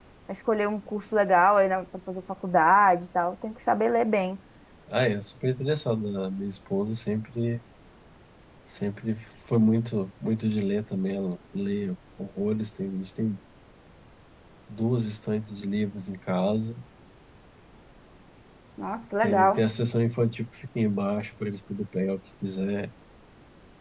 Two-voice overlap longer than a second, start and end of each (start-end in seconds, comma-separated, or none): none